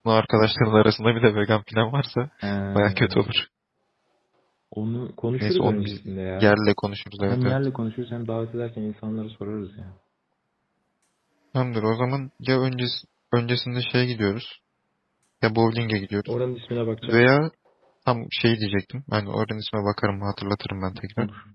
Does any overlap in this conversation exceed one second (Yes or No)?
No